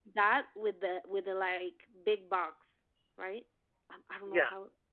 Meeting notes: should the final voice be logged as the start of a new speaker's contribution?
Yes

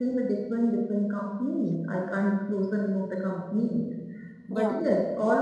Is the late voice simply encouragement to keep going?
Yes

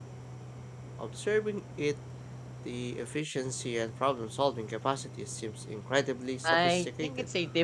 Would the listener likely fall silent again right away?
No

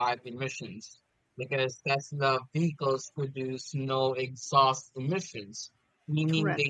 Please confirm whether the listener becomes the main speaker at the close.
No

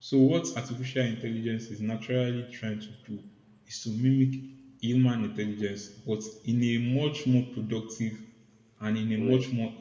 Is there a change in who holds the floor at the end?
No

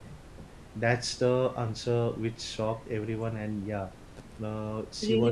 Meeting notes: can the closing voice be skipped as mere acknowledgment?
Yes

